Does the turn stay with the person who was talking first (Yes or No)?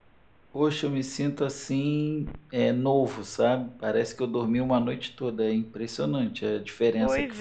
No